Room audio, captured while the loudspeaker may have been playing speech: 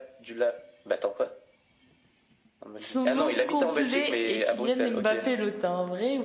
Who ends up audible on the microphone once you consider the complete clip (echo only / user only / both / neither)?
both